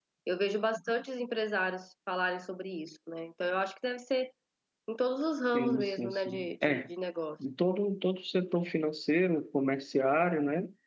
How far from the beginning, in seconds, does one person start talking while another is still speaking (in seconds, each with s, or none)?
5.5 s